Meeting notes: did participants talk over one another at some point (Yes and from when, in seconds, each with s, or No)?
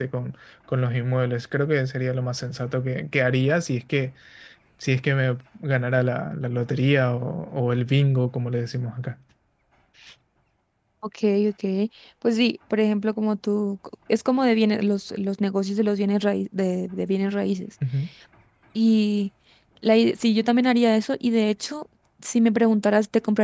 No